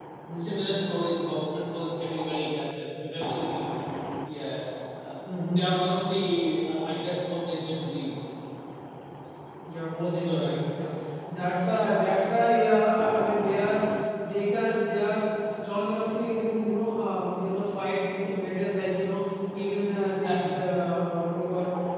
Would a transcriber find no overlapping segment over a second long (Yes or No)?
Yes